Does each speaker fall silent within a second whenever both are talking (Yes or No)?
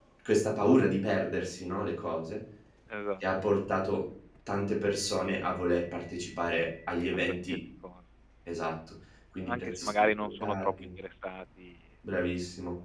No